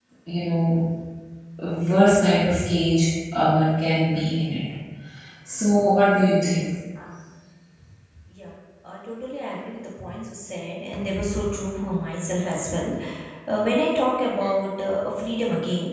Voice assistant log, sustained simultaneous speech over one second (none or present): none